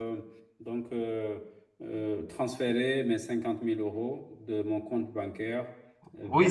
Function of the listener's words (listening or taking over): taking over